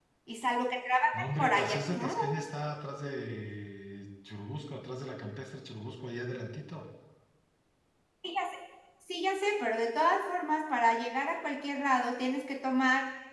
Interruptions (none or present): present